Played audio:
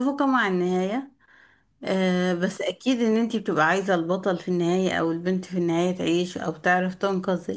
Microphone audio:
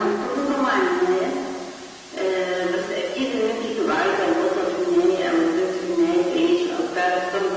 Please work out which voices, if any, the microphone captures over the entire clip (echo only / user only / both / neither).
echo only